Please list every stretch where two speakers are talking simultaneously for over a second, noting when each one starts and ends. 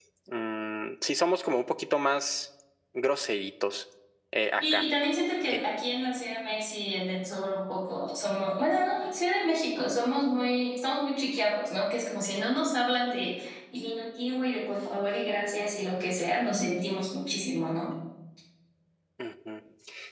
none

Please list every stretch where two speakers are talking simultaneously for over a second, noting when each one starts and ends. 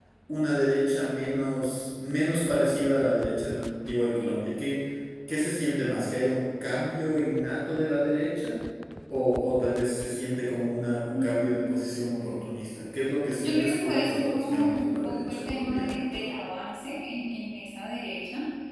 13.4-16.3

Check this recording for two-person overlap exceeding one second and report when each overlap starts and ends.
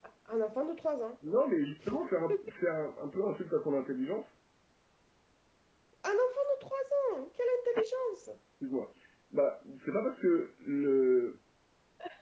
none

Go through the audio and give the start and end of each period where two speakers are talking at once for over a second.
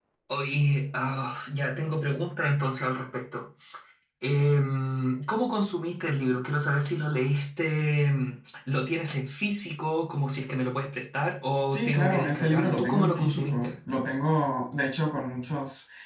11.7-13.8

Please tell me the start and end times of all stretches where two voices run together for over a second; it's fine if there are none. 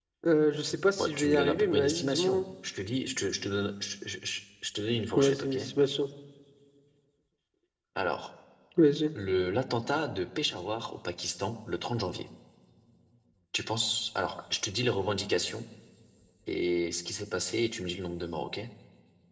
1.0-2.4

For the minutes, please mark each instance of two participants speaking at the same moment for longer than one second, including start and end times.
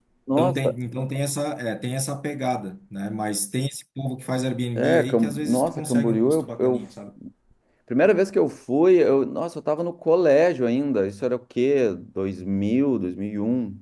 4.8-6.8

